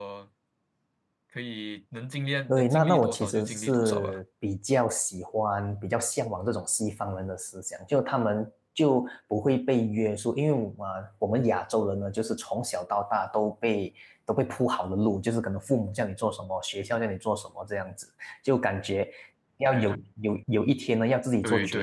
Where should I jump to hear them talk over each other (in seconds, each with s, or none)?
2.5 s